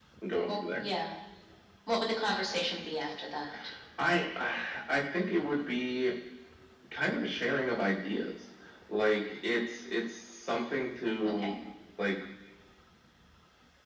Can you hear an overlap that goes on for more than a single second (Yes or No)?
No